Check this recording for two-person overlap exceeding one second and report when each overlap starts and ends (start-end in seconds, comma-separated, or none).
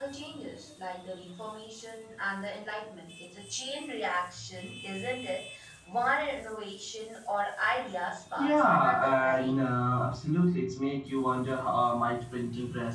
8.4-9.6